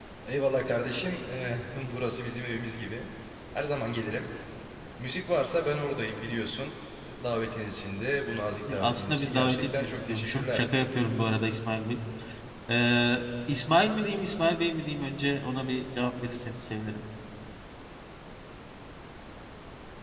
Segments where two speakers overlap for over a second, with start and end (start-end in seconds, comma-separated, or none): 8.8-10.6